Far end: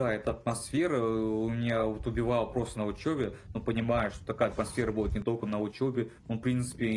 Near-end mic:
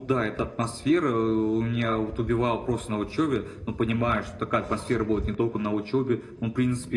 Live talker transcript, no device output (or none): none